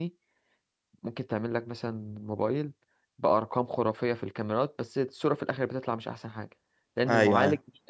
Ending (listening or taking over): listening